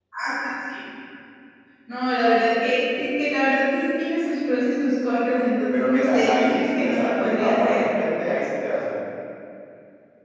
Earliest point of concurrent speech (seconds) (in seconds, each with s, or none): 5.7 s